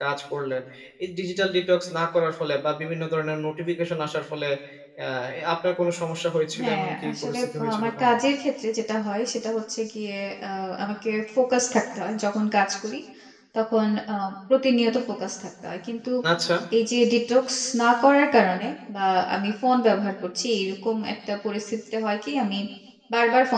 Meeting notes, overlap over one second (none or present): present